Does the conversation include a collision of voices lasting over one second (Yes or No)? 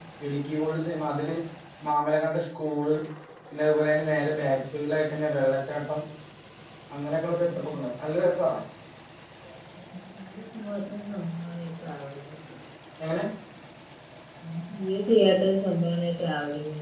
No